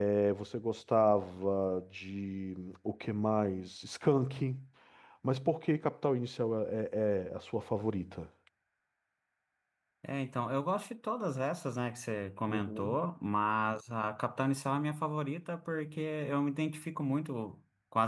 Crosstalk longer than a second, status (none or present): none